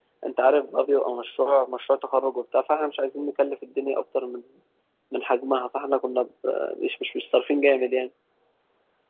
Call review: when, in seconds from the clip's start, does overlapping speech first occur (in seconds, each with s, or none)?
none